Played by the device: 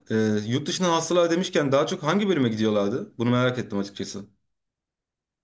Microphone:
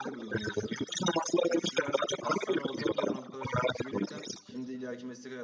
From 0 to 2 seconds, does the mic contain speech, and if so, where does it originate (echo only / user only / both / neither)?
both